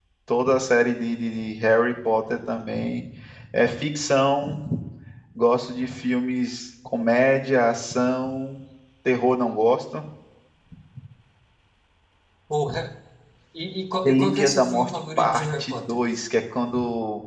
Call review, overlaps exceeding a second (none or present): present